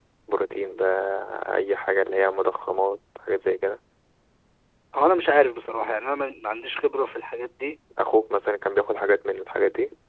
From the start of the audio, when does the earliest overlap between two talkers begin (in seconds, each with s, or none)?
none